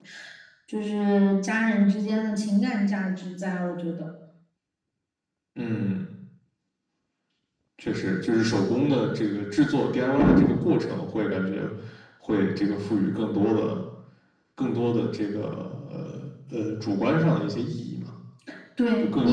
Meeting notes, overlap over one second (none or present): none